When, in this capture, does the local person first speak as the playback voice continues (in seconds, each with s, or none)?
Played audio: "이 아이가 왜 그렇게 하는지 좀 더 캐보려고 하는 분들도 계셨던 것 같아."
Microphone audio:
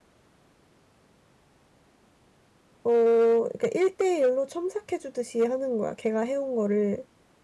2.8 s